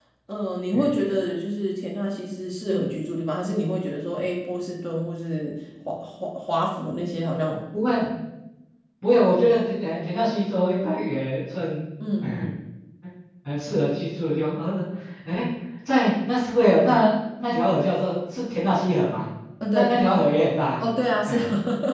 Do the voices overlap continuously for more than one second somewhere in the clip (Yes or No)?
No